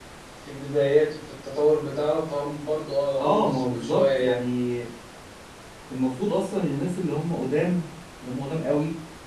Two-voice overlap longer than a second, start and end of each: 3.2-4.5

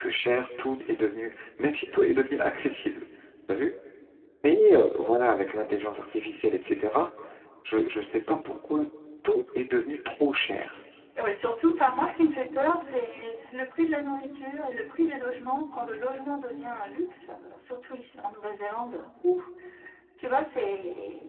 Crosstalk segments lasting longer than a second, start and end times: none

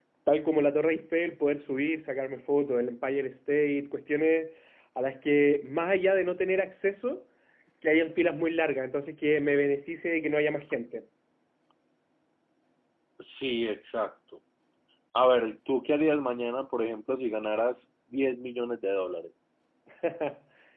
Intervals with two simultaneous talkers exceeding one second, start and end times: none

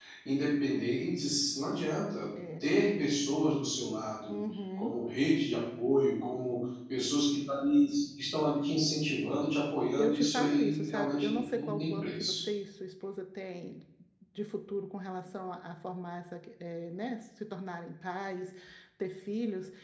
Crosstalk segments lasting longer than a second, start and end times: 10.0-12.4

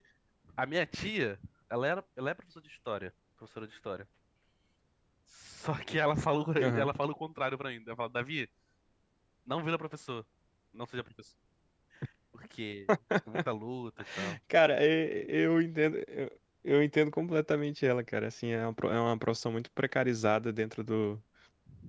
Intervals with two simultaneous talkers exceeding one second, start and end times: none

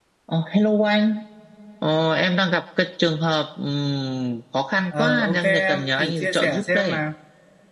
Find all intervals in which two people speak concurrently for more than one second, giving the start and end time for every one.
5.0-7.0

